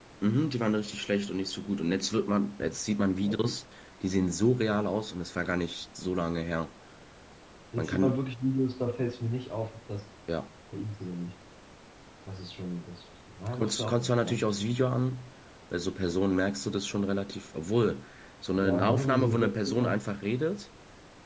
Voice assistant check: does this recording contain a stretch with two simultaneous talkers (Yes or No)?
Yes